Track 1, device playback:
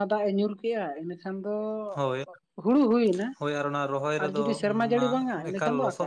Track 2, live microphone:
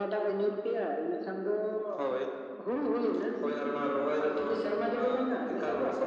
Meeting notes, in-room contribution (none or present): none